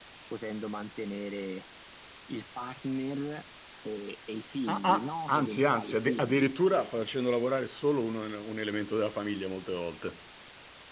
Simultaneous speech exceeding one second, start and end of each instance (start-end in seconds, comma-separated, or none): 4.7-7.0